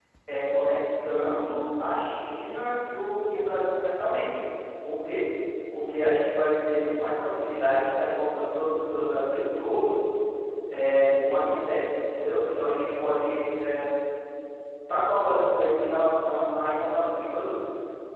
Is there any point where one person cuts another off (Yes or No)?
No